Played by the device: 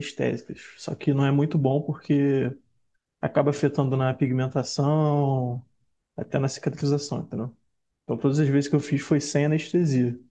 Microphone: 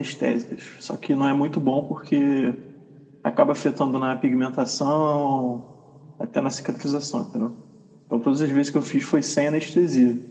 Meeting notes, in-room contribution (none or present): none